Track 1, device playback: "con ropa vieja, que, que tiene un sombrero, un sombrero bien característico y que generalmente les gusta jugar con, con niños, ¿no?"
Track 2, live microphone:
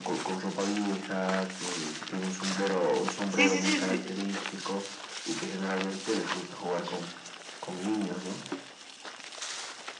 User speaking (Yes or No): Yes